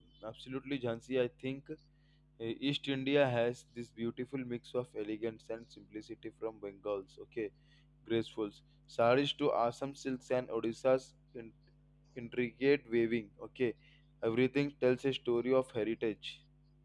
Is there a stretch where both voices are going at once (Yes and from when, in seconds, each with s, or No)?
No